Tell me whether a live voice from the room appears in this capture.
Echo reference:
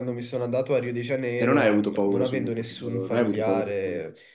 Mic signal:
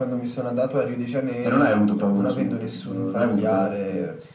No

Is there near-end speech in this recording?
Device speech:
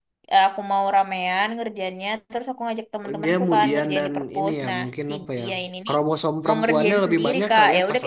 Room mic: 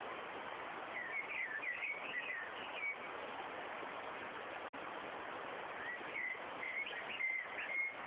No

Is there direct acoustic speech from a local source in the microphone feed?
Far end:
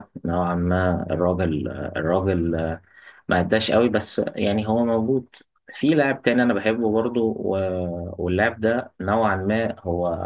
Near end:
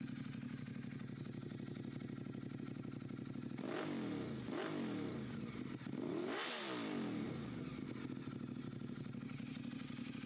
No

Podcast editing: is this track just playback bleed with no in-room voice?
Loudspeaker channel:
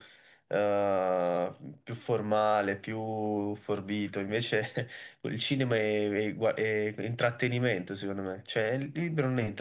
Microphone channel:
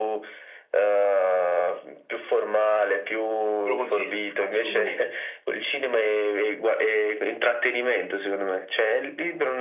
No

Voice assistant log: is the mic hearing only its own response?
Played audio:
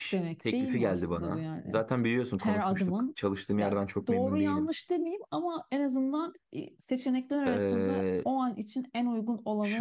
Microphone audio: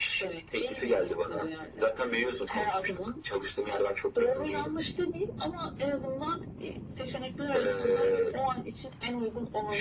Yes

